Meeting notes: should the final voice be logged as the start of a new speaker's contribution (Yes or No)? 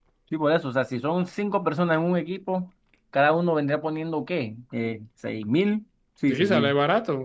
Yes